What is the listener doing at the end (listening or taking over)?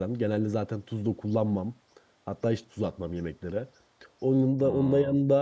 listening